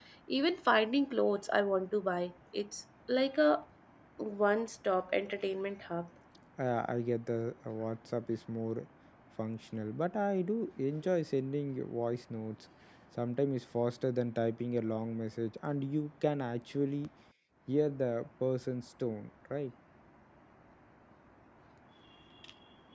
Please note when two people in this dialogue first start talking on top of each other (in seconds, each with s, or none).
none